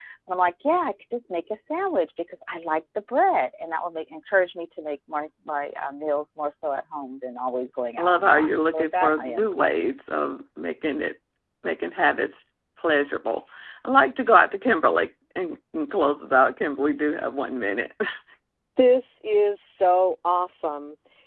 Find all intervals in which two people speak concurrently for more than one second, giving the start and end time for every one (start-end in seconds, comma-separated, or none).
8.0-9.9